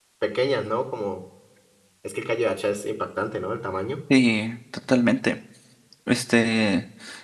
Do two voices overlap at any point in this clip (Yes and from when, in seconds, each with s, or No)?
No